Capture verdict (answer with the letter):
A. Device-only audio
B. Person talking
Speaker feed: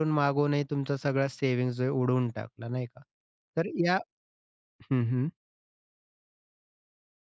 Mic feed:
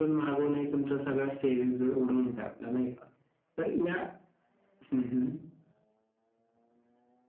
A